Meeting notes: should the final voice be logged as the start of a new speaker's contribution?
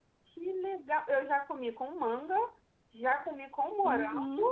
Yes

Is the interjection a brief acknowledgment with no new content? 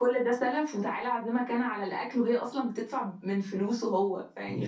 Yes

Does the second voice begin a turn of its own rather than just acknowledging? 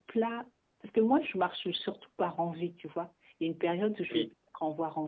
No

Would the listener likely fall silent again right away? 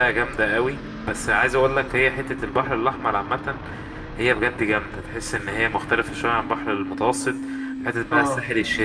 Yes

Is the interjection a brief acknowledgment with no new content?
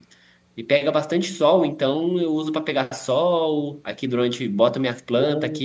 Yes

